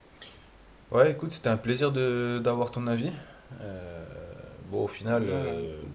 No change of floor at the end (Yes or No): Yes